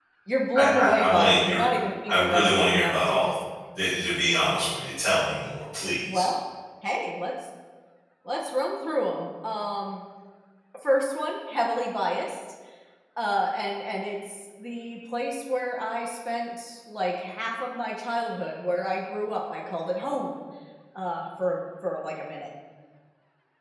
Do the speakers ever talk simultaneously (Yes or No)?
Yes